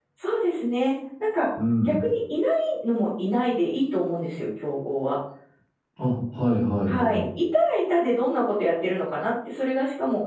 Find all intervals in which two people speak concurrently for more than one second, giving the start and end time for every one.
none

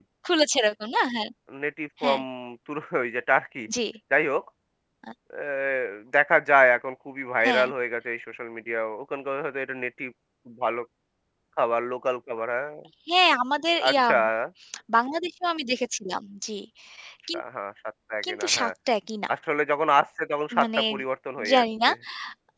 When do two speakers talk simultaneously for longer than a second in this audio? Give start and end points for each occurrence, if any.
none

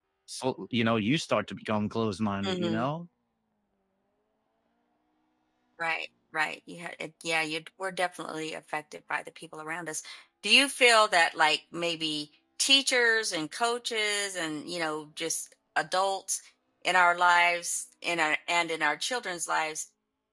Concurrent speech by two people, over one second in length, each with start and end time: none

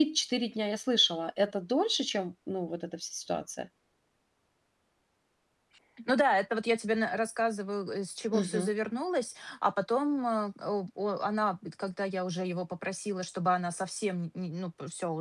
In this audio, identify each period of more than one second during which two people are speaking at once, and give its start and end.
none

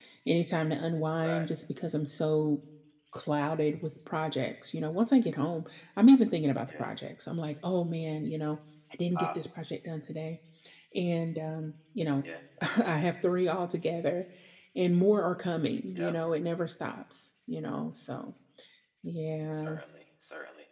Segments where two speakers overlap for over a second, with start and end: none

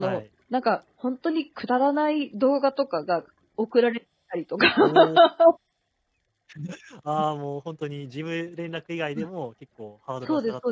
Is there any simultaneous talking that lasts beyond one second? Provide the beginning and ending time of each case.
none

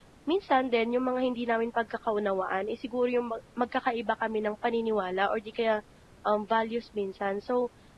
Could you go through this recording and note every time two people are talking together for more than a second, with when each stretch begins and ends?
none

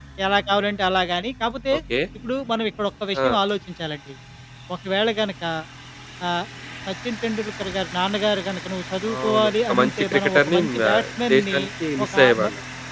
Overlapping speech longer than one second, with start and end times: 9.1-10.8

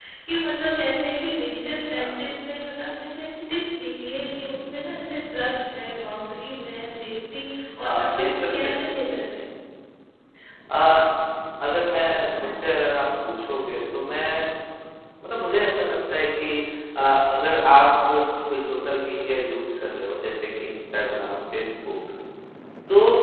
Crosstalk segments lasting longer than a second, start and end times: 7.9-9.2

